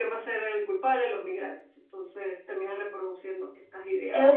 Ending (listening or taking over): taking over